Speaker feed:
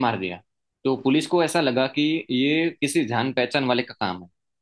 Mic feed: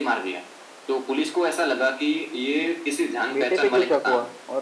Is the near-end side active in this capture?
Yes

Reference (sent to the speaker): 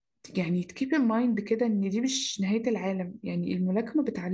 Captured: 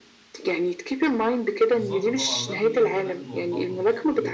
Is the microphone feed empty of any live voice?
No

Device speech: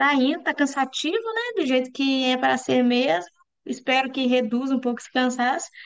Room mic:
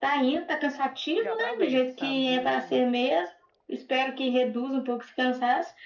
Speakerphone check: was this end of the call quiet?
No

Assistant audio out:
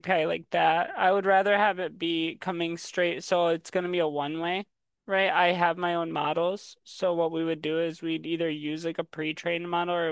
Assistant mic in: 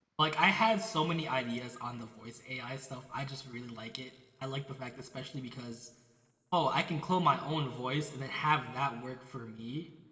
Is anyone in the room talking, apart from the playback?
Yes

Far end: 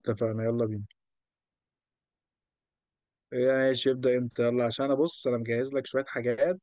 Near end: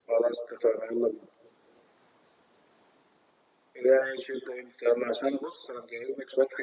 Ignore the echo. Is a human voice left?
No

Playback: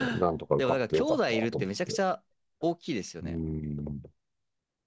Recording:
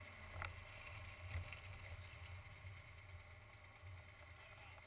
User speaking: No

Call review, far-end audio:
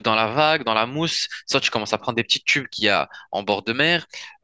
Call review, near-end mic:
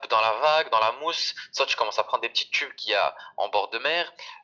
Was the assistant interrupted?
No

